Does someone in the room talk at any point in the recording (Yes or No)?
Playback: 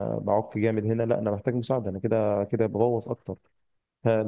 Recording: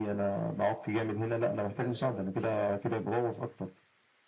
Yes